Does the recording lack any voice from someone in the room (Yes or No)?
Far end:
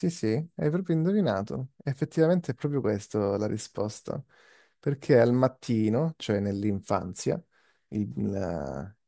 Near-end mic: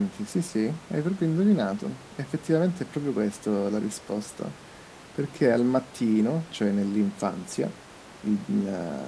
Yes